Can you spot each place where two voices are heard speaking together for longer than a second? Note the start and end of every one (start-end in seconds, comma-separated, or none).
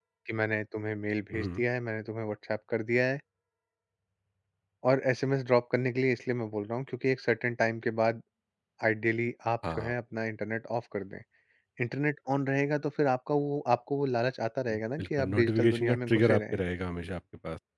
14.7-16.6